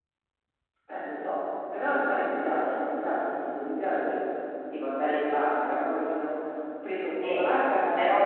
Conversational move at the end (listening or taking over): listening